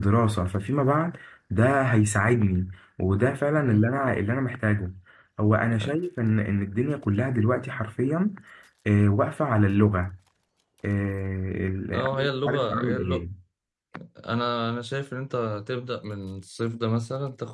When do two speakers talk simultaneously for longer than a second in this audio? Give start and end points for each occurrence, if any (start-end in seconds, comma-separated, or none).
11.9-13.2